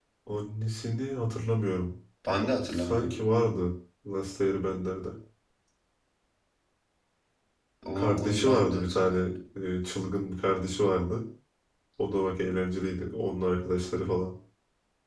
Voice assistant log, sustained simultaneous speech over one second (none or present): present